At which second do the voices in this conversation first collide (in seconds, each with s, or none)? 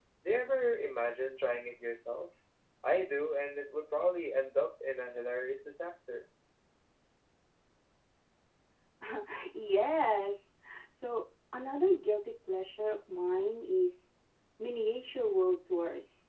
none